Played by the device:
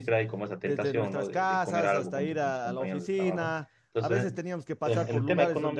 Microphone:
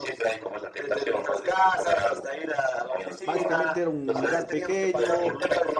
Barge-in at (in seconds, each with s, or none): 3.2 s